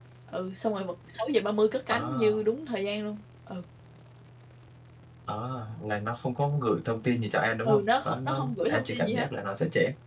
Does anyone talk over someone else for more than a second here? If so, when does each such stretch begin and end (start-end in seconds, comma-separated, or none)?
7.7-9.3